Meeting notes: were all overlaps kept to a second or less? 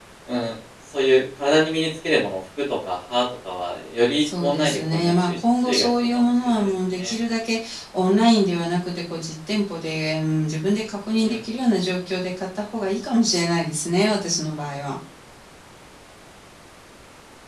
No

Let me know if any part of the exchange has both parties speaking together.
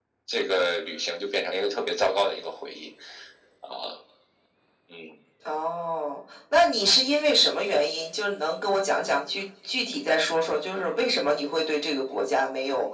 No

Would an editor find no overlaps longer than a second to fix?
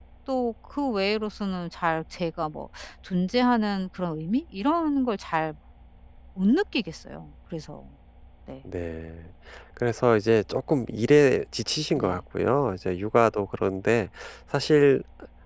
Yes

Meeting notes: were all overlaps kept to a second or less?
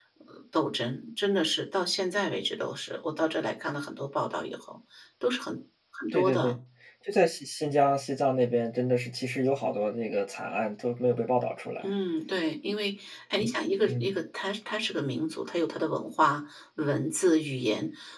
Yes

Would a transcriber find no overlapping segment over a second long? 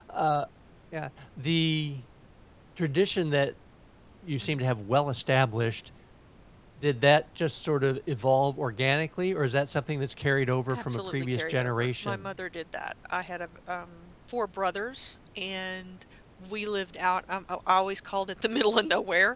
No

